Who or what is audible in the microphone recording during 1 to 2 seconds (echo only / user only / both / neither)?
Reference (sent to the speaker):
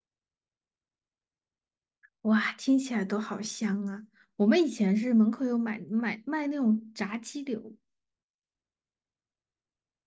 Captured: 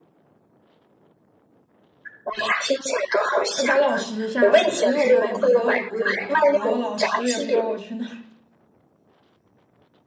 neither